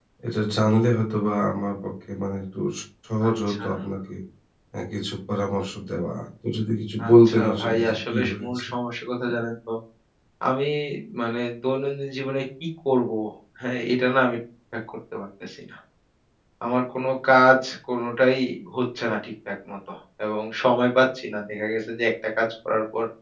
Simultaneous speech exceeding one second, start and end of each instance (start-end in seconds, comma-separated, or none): 7.1-8.5